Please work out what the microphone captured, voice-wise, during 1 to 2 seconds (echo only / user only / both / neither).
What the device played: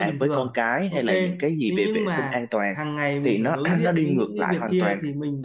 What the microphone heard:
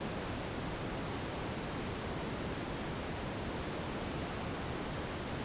neither